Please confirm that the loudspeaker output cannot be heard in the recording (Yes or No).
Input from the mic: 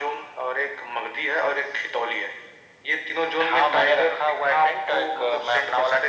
No